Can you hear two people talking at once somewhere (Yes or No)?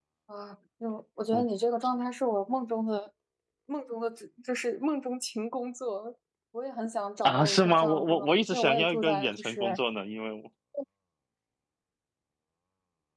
Yes